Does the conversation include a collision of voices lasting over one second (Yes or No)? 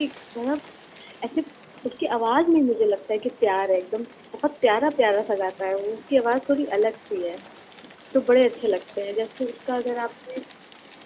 No